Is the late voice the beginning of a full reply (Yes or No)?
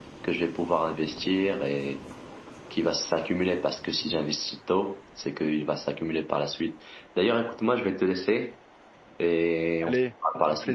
Yes